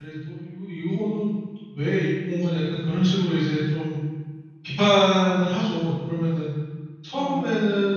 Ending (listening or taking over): listening